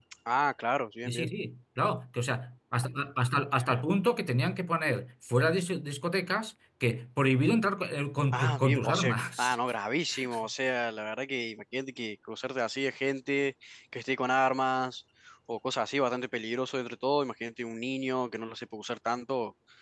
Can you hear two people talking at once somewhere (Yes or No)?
Yes